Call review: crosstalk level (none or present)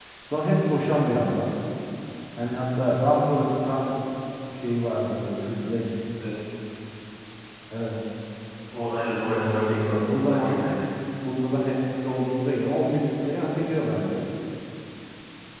present